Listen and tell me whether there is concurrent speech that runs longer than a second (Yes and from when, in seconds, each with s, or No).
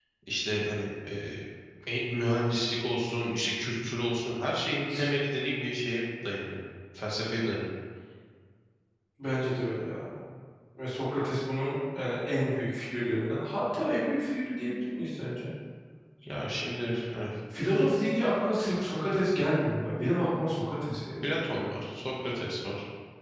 No